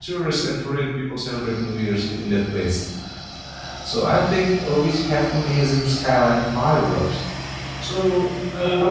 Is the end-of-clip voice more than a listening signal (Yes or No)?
No